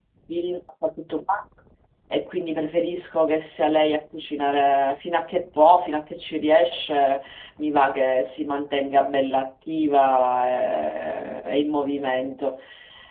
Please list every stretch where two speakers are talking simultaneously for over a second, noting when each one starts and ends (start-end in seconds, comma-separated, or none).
none